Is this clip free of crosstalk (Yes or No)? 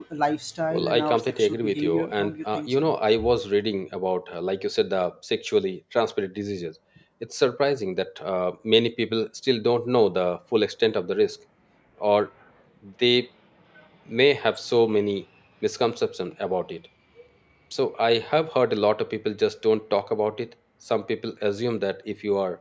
No